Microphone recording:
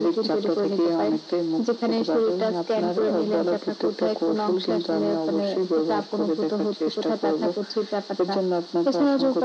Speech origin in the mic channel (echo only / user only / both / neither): echo only